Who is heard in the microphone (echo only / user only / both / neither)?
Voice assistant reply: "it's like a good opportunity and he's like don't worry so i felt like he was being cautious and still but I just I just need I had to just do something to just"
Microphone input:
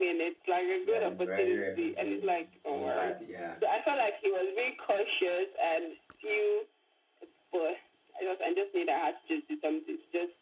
both